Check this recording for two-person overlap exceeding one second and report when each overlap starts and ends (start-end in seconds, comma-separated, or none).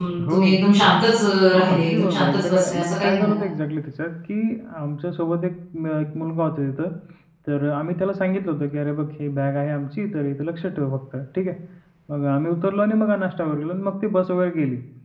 1.7-3.4